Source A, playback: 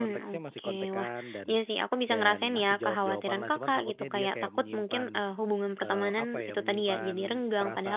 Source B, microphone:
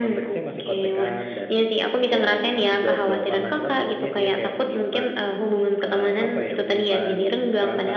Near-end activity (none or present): none